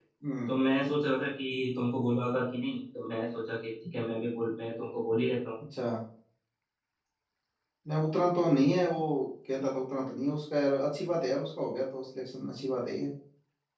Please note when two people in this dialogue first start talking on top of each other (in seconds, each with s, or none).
none